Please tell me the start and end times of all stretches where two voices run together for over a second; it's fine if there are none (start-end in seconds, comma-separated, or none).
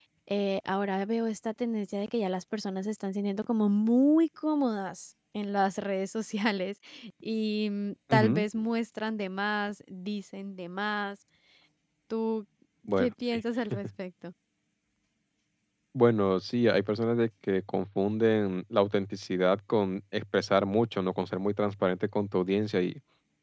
none